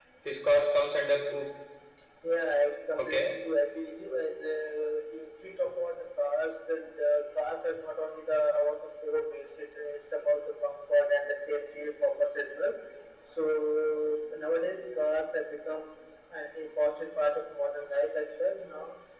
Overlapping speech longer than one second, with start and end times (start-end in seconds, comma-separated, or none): none